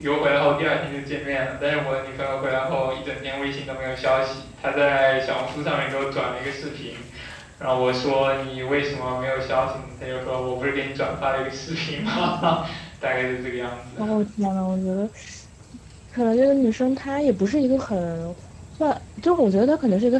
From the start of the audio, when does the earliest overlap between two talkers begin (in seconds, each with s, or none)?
none